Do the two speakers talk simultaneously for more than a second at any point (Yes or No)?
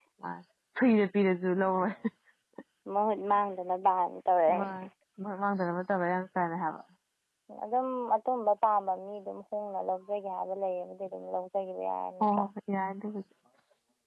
No